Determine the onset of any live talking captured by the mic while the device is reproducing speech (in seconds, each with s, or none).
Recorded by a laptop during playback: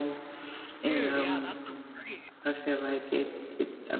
0.8 s